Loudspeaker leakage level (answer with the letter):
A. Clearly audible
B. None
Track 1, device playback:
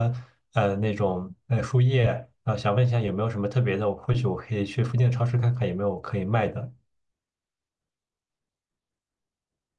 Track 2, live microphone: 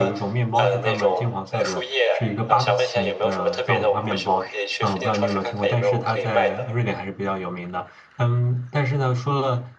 A